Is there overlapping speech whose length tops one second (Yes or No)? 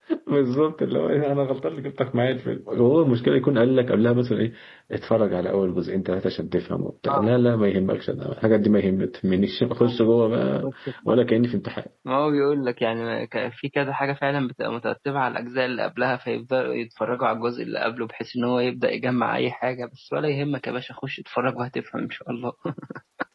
No